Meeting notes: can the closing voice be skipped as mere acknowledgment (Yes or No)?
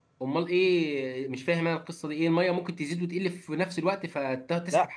No